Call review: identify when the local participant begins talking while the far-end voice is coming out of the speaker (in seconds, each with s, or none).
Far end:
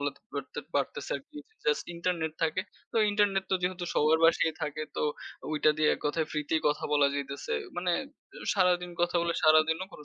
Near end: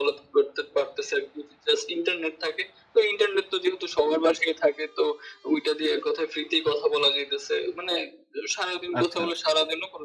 9.0 s